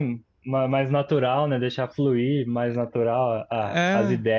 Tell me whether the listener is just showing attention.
Yes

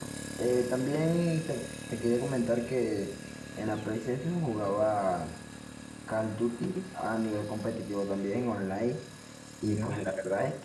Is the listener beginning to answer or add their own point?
No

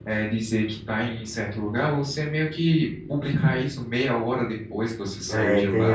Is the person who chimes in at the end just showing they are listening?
No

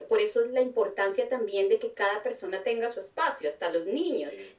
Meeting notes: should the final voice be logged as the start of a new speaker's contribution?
No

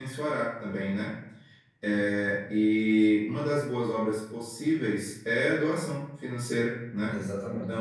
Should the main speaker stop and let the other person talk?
No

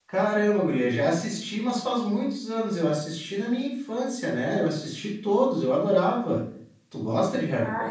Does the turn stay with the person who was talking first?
No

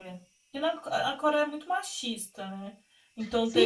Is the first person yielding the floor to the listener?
Yes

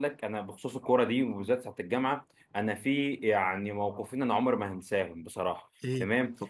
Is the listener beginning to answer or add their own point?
No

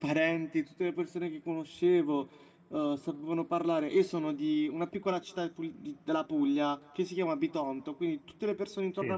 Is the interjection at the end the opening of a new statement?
No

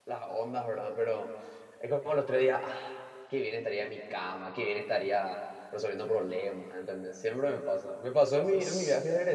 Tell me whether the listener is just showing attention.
Yes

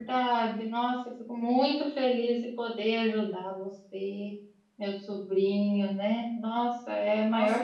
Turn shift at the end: Yes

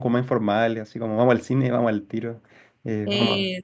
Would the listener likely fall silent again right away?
Yes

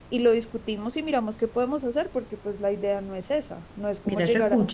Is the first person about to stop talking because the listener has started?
Yes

